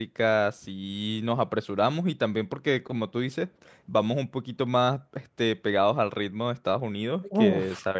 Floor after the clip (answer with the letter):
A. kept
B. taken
A